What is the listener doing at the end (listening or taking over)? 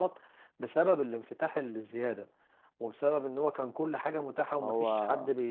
listening